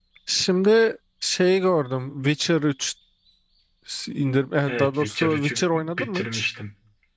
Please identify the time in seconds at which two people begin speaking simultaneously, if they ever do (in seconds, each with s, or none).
4.7 s